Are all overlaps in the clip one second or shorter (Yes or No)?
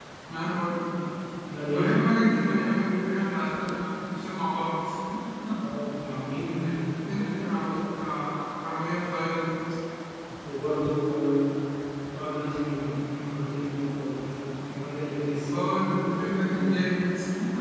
No